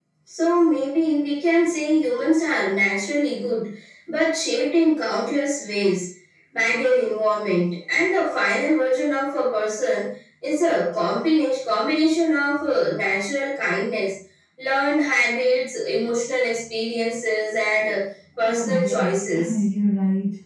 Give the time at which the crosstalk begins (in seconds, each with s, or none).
18.4 s